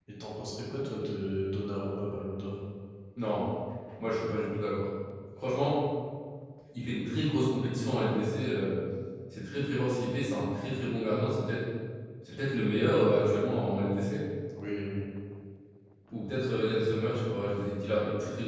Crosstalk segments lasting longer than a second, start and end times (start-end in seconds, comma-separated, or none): none